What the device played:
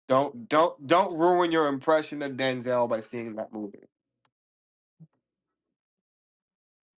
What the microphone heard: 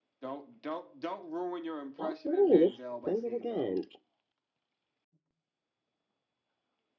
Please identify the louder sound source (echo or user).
user